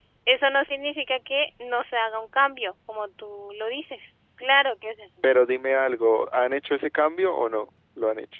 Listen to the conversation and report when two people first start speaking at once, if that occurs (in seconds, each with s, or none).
none